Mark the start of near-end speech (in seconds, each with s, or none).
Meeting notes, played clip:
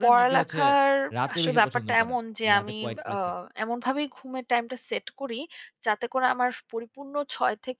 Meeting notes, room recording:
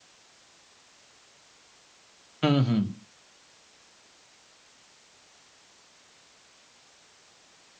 2.4 s